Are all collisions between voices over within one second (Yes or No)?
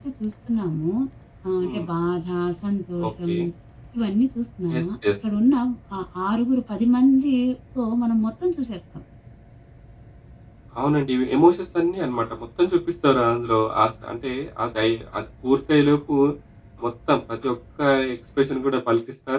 Yes